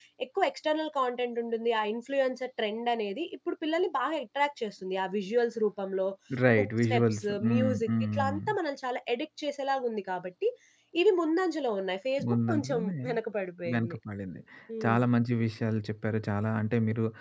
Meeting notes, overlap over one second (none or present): present